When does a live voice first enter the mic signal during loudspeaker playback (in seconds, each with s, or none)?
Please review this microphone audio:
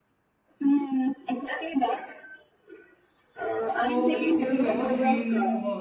3.6 s